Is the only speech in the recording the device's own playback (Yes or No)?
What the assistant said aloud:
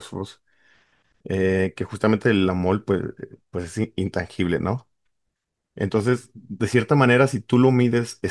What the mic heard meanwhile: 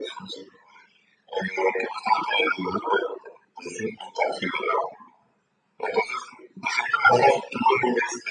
Yes